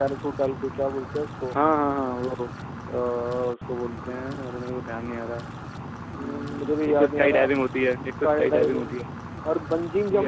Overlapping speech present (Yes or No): Yes